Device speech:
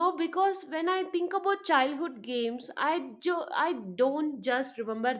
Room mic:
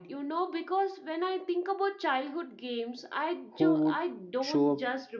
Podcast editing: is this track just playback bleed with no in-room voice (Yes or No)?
No